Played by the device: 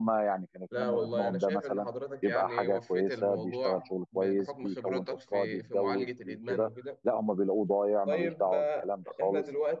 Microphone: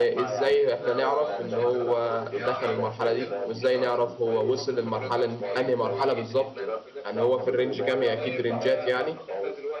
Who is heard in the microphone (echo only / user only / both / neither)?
both